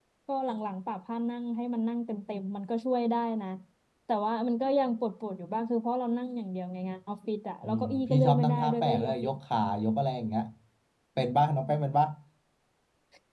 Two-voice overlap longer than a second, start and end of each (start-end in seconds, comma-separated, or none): 7.6-9.3